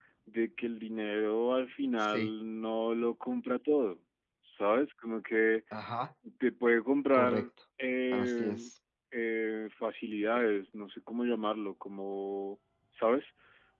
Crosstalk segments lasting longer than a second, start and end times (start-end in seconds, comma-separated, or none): none